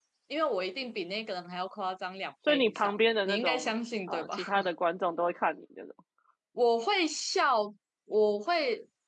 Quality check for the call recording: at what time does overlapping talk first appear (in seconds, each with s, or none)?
2.5 s